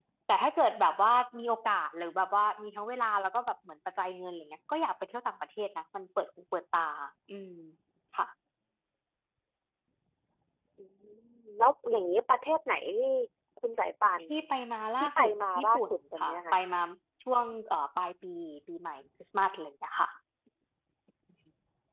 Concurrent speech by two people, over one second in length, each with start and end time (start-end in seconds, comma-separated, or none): 15.0-16.6